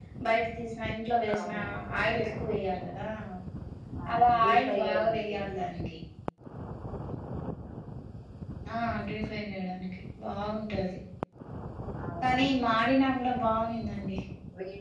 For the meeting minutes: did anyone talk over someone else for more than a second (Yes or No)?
Yes